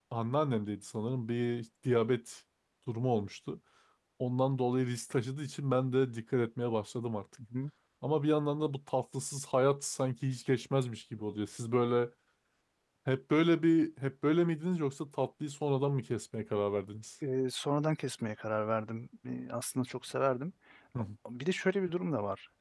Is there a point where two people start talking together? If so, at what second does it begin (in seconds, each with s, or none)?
none